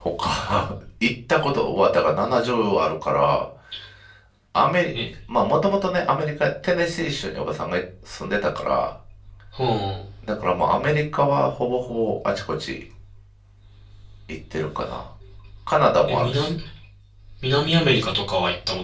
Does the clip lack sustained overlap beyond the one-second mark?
Yes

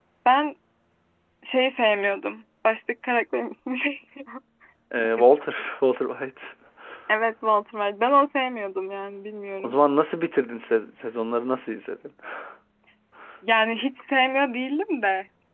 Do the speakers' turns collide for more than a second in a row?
No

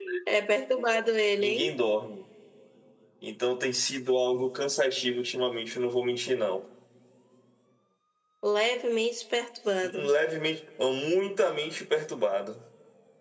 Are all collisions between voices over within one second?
Yes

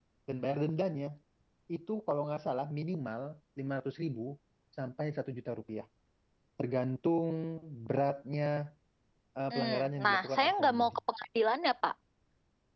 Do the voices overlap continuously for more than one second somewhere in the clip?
Yes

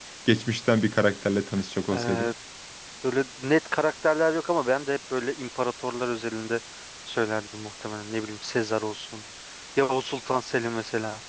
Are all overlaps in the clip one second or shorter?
Yes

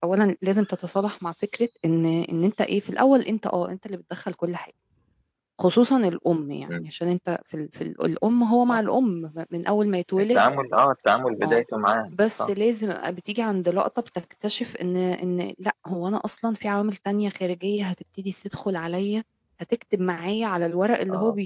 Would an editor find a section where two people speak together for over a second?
No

